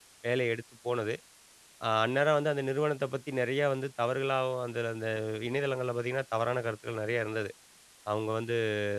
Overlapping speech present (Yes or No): No